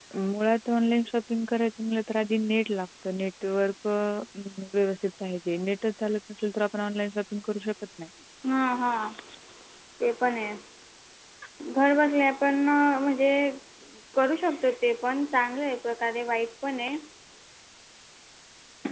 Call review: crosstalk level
none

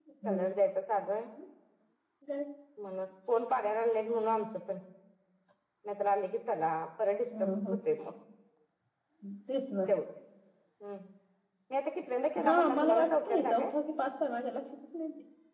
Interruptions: present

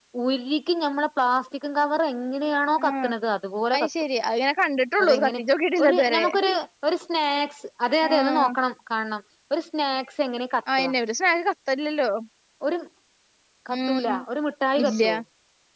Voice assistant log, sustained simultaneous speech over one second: none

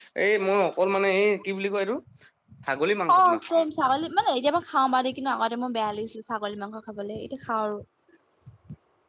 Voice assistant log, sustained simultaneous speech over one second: none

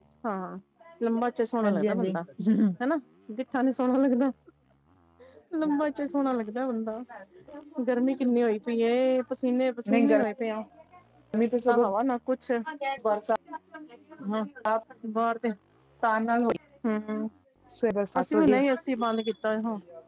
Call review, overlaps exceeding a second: none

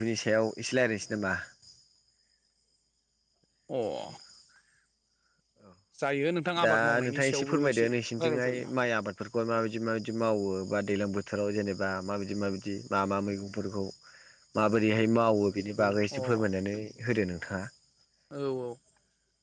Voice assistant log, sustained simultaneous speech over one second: present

